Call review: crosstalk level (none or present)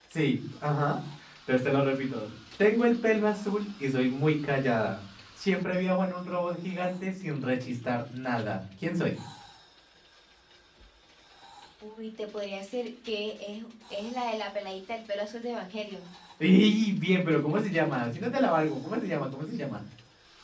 none